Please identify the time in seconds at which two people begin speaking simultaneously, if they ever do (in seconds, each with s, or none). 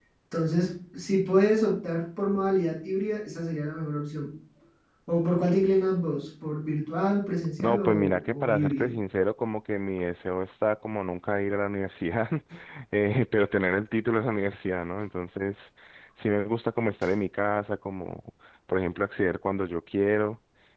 7.6 s